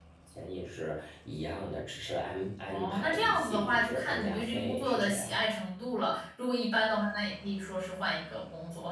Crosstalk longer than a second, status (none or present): present